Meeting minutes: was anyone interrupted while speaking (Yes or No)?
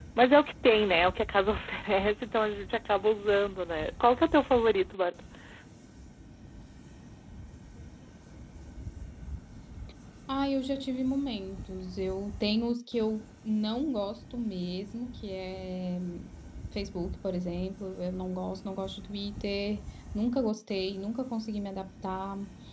No